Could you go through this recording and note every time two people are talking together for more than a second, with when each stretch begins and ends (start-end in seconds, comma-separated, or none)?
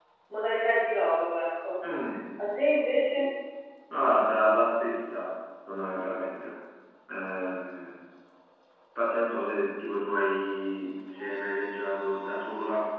none